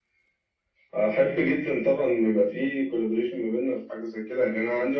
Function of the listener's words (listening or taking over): taking over